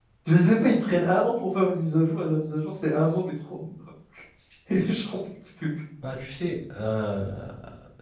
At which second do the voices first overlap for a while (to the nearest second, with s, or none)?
none